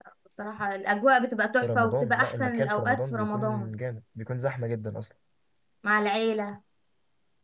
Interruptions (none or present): present